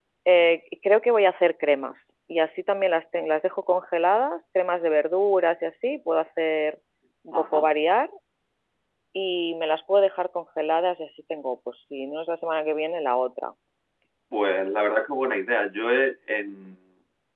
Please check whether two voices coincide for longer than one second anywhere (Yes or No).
No